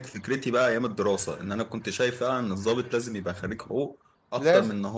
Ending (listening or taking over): listening